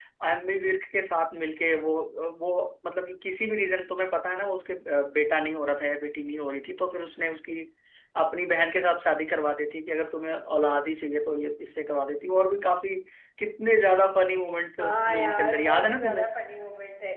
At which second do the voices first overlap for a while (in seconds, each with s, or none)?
14.8 s